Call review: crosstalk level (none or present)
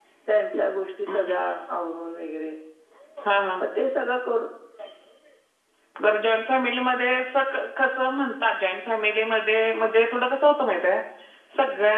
none